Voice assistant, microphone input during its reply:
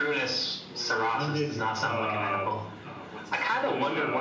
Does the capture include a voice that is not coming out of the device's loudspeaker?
Yes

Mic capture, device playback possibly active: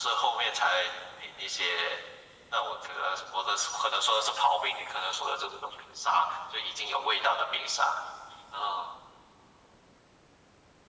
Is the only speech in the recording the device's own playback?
Yes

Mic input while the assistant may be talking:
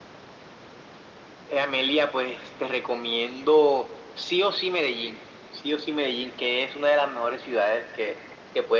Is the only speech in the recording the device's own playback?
Yes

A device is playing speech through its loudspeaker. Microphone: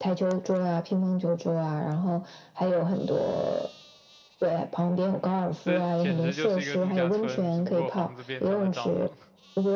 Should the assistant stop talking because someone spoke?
Yes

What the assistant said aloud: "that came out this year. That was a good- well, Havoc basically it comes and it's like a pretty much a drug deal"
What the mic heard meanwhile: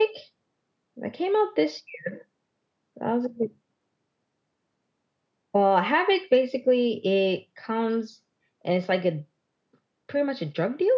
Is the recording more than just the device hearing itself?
No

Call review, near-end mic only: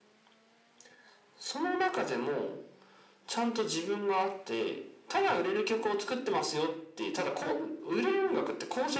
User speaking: No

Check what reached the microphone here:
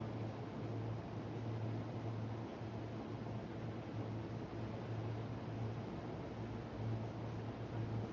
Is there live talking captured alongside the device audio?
No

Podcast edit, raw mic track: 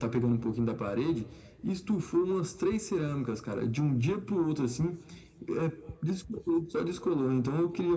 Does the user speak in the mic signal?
No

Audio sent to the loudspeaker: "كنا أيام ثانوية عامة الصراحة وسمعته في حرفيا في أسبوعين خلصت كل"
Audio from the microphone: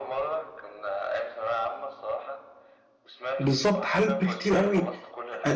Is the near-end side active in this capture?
Yes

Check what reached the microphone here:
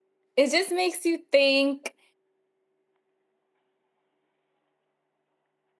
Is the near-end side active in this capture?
Yes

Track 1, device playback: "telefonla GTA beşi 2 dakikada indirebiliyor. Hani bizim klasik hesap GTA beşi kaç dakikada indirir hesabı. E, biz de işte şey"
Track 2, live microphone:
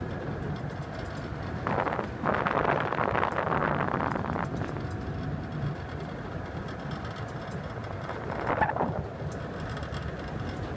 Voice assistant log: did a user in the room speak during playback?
No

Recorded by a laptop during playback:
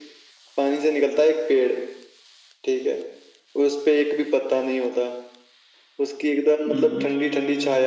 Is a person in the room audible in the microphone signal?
Yes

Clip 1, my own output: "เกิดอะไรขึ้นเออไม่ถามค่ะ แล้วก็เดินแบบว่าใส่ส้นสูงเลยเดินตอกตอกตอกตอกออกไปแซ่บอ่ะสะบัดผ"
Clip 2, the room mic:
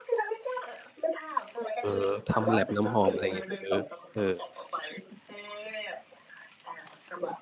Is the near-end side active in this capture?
Yes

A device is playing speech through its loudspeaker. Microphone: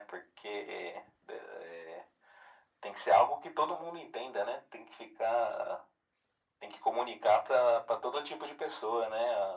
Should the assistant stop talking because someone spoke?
No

